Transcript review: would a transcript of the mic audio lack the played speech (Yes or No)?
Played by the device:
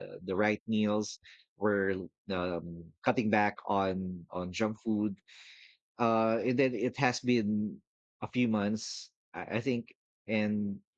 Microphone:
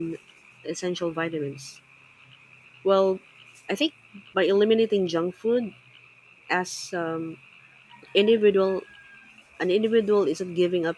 Yes